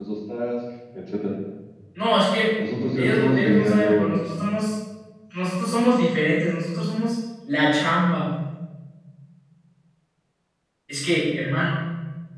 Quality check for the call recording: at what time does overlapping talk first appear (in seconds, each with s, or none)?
3.0 s